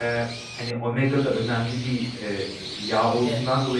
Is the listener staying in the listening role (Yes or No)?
Yes